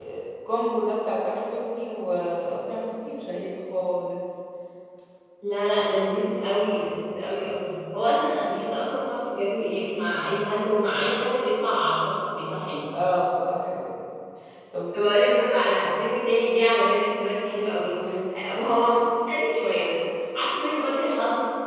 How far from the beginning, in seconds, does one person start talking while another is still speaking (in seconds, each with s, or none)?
none